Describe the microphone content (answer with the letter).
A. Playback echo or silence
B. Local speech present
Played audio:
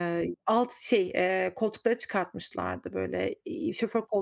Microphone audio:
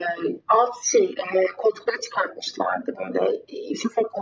A